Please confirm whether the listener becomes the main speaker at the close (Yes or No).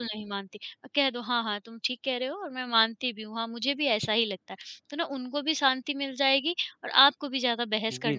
Yes